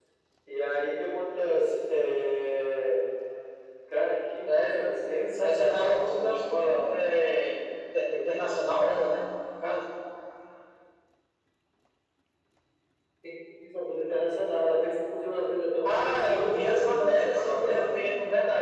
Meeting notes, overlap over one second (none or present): present